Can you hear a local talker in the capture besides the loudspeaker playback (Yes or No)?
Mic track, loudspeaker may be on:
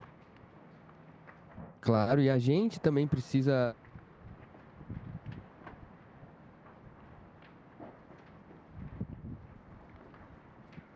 Yes